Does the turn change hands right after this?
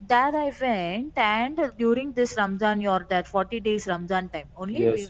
Yes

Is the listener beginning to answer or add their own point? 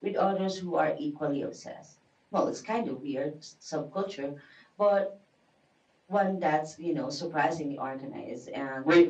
Yes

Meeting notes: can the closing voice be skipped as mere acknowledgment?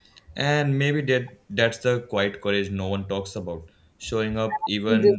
No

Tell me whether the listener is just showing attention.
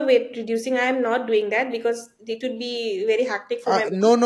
No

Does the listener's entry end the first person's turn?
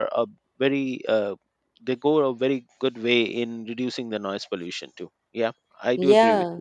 Yes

